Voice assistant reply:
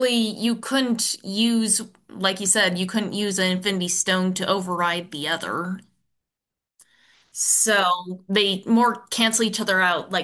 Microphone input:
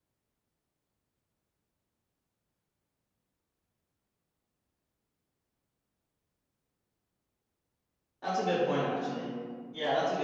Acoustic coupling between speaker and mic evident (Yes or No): No